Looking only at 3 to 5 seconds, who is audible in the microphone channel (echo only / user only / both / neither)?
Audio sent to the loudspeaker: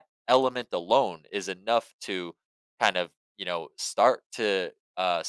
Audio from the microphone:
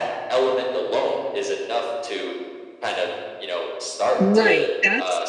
both